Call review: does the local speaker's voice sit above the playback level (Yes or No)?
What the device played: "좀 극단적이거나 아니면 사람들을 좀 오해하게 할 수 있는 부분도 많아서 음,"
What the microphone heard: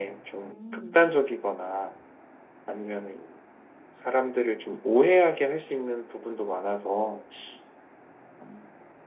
No